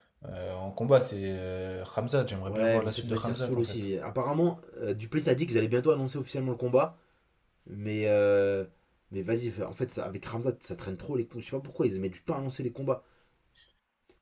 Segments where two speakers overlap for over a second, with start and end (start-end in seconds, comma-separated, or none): 2.5-3.9